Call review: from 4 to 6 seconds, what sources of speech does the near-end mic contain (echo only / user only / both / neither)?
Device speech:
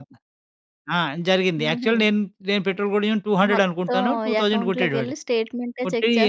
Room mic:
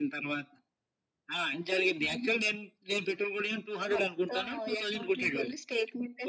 echo only